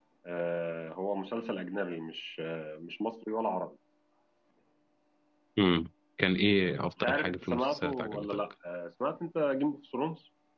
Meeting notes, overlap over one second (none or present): present